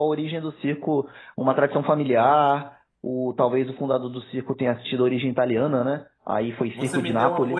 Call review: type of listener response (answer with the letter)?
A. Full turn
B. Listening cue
A